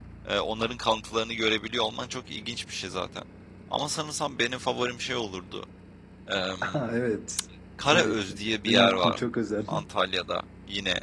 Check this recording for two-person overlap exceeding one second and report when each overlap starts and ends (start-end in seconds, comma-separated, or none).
7.9-9.2